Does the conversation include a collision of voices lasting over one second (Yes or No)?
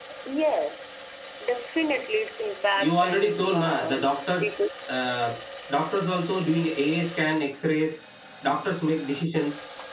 Yes